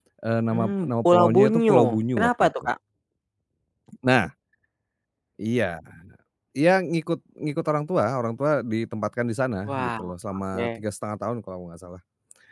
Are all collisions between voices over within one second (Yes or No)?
No